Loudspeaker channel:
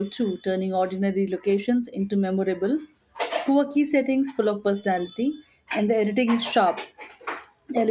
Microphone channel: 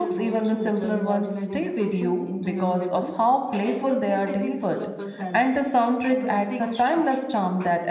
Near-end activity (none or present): present